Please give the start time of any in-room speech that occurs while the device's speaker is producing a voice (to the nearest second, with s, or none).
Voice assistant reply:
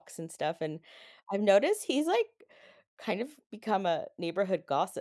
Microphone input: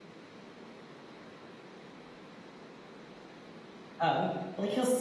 4 s